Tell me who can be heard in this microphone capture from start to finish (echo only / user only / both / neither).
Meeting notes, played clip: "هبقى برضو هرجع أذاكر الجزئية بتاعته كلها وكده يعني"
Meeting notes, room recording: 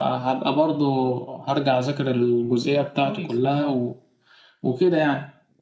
both